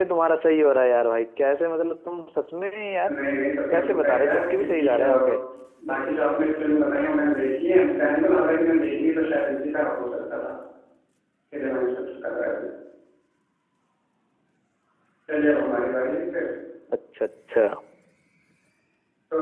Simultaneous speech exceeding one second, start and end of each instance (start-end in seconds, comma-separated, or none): 3.7-5.0